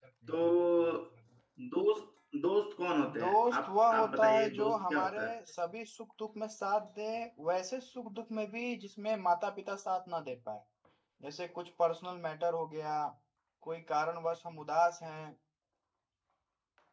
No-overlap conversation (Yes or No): No